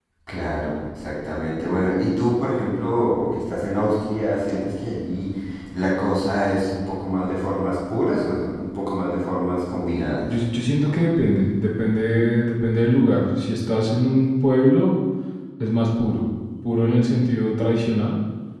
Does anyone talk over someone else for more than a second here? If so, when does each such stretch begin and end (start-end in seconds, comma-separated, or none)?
none